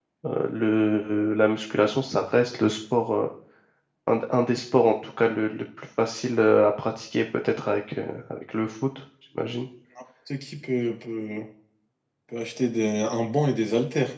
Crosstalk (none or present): none